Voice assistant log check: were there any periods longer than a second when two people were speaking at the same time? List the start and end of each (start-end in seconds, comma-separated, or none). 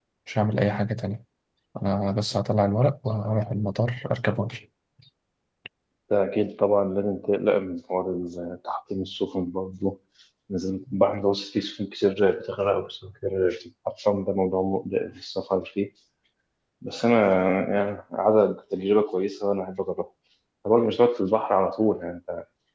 none